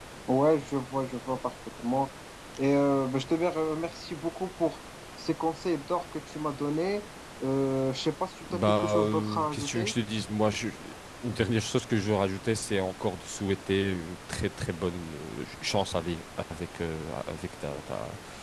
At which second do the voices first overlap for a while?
8.5 s

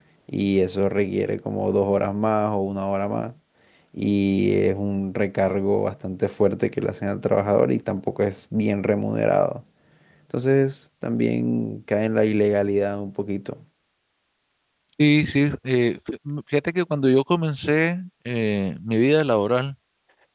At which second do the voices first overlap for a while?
none

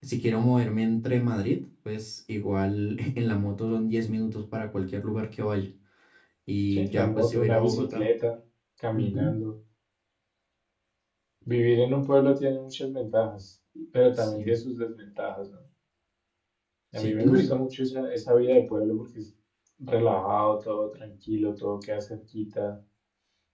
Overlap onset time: 6.7 s

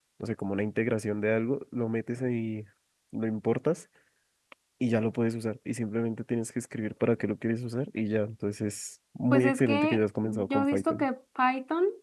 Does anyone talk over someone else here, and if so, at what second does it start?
9.3 s

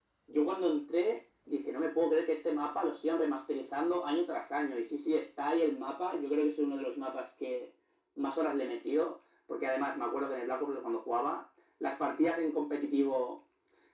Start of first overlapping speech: none

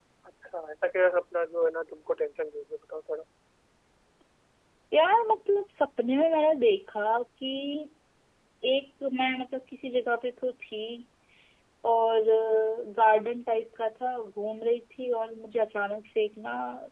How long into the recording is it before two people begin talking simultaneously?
none

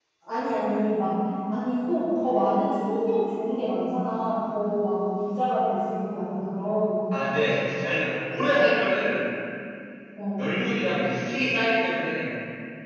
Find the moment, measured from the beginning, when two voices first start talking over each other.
none

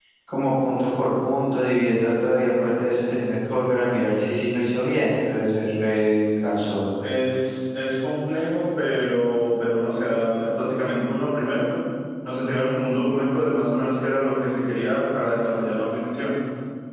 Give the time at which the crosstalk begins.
none

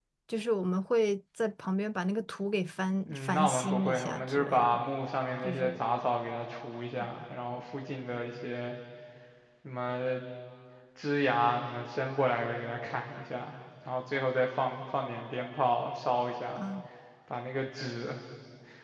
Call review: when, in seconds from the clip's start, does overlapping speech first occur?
3.1 s

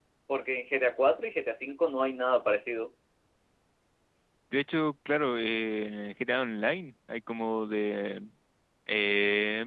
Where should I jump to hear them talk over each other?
none

